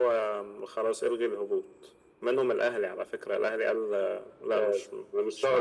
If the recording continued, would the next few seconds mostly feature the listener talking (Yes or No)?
Yes